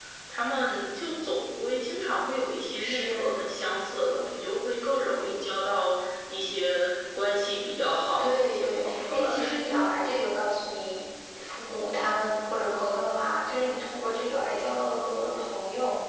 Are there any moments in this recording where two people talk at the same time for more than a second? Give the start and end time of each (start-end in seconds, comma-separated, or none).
8.2-9.7